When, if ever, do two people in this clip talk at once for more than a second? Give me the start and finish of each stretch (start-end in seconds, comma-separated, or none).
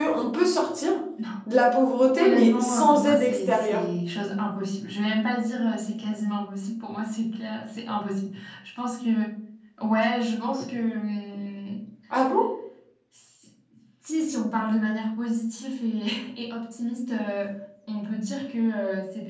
2.1-3.9